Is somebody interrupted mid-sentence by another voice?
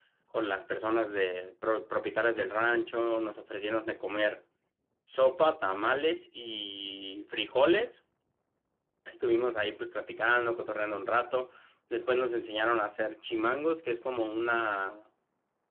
No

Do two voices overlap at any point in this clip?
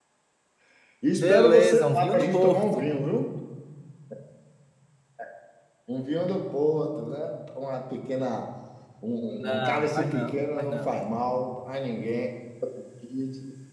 Yes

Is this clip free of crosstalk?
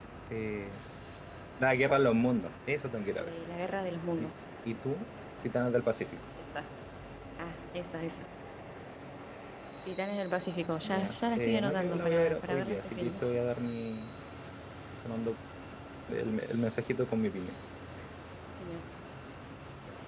No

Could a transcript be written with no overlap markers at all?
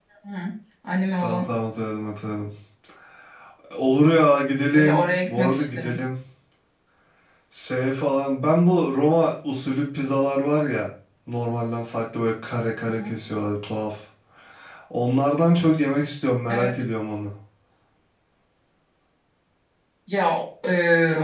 No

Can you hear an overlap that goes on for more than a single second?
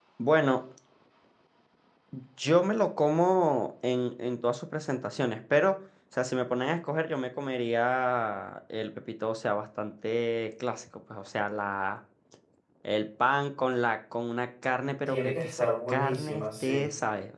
Yes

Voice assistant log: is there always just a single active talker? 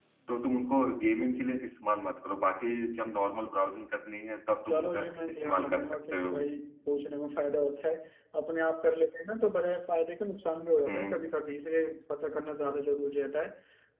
No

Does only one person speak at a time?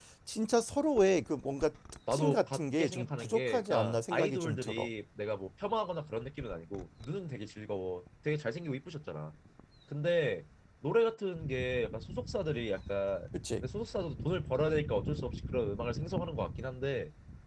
No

